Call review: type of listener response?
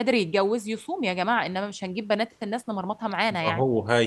taking over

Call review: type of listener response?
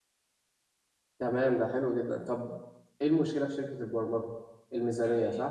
taking over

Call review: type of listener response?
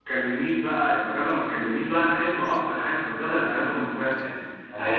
listening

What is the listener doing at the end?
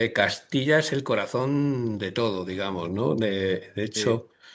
taking over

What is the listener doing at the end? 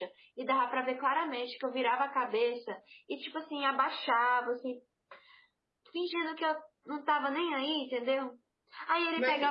listening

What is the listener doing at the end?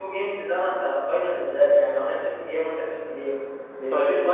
taking over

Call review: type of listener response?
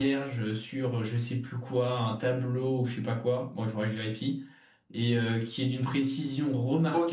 taking over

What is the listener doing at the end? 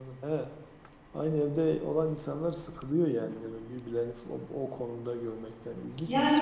taking over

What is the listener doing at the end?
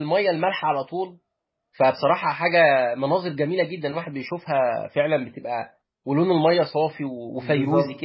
taking over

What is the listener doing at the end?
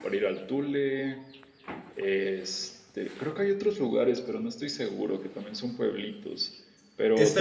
taking over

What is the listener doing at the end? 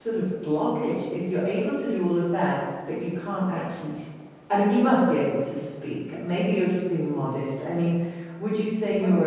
listening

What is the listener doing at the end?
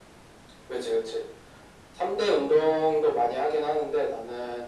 listening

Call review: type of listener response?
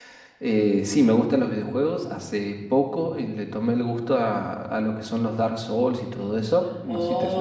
taking over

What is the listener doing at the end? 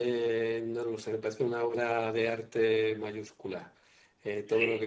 listening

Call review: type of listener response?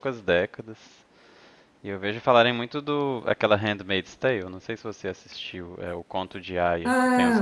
taking over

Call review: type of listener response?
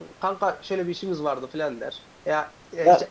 listening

